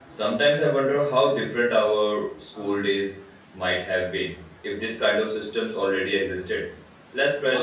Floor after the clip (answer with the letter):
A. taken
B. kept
B